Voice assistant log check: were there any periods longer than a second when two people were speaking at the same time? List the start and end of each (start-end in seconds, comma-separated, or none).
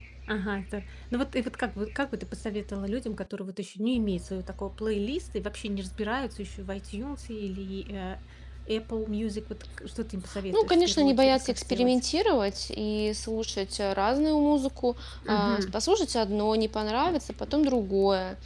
10.5-12.0